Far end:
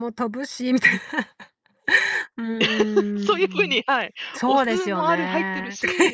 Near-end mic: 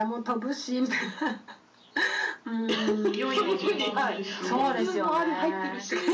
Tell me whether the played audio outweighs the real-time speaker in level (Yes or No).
Yes